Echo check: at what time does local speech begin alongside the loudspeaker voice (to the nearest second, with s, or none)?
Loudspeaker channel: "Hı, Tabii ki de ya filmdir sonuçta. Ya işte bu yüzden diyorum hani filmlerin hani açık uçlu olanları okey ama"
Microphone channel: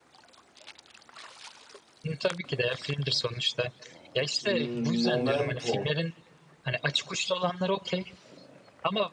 4 s